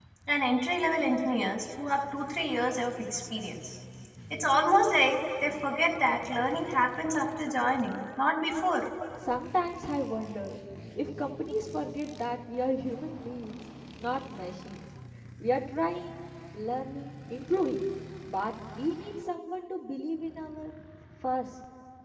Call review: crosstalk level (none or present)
none